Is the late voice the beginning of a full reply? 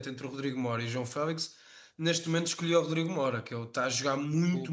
No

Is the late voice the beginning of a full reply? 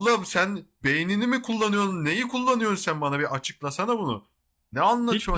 Yes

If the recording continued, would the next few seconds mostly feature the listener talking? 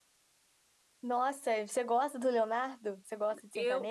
Yes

